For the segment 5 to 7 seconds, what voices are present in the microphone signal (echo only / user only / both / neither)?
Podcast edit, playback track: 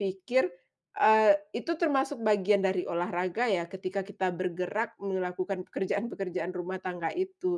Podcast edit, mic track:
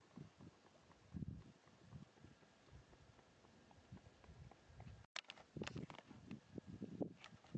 neither